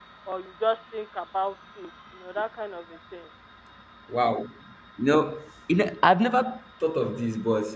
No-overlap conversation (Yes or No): Yes